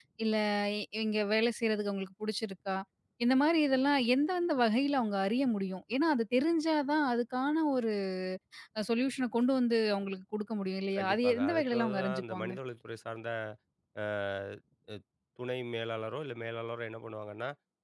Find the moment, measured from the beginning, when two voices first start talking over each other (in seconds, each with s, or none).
11.0 s